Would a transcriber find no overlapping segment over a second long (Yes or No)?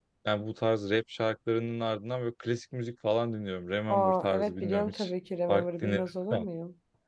No